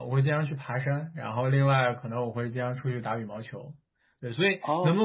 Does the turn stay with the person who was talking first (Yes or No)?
Yes